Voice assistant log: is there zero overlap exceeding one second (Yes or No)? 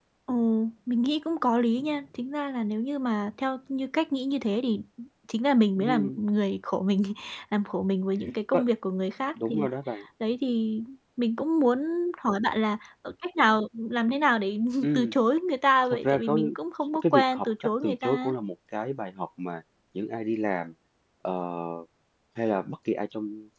No